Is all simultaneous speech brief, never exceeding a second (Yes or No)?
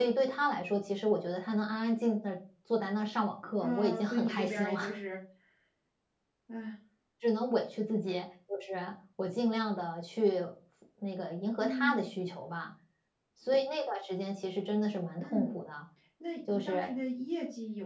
No